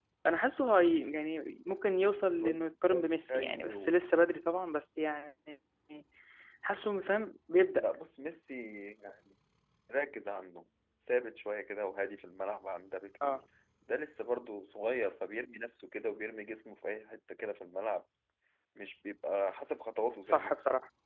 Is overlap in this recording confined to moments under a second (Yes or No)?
No